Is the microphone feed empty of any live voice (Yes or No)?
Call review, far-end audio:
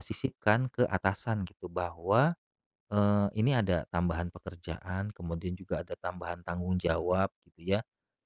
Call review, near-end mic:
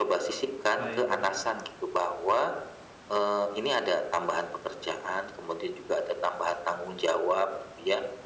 No